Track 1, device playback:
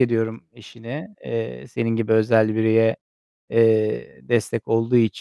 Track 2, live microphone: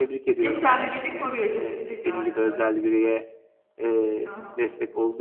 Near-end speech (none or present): present